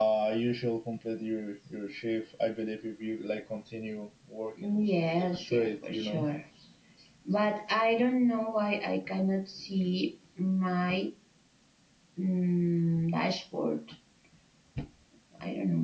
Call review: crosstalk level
present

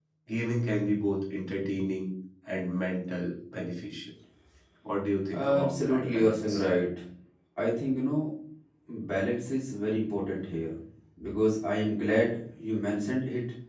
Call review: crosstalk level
present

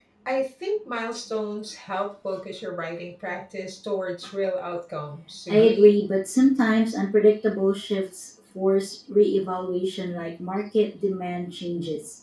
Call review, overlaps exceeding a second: none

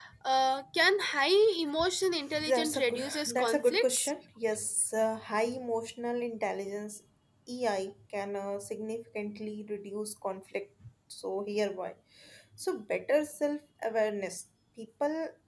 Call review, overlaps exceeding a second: present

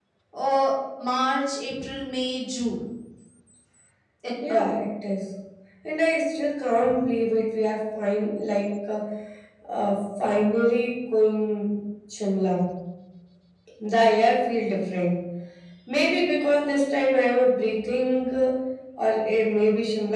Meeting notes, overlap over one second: none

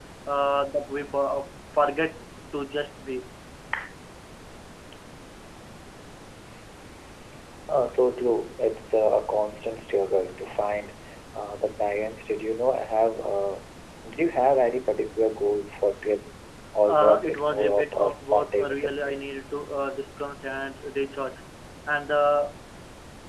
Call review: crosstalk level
present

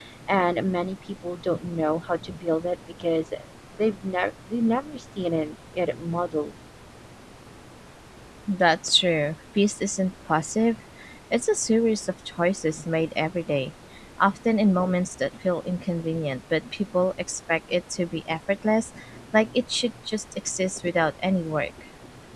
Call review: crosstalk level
none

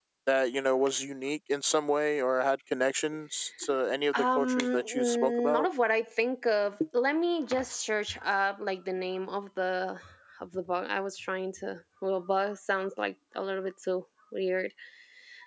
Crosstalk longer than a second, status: present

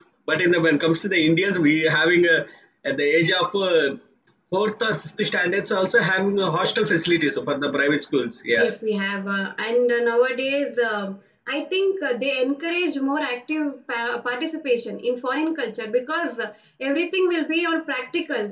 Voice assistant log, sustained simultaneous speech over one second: none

